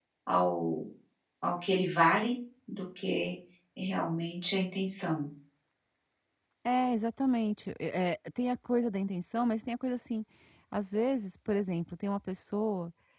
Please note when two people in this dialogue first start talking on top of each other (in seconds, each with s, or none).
none